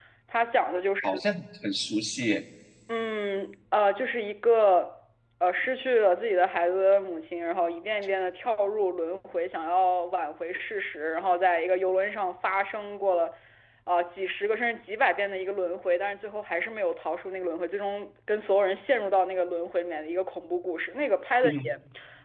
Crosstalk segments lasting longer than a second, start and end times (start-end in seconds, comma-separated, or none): none